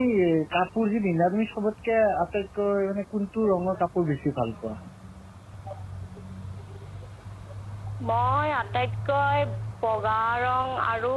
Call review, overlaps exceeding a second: none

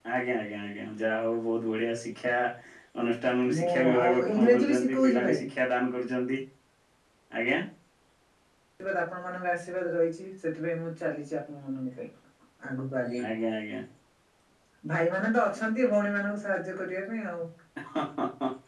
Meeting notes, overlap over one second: present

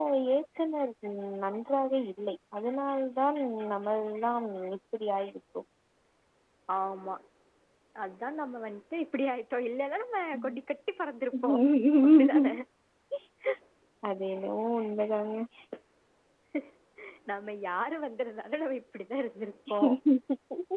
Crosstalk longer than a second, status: none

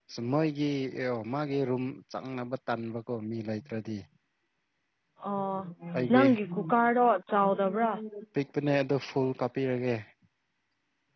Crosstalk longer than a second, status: none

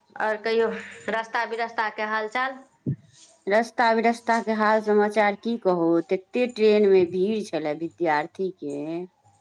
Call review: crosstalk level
none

